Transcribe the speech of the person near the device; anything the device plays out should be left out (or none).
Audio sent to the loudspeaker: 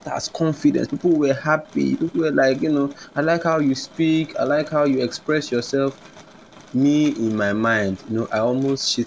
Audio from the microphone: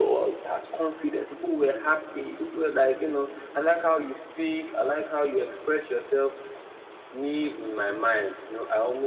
none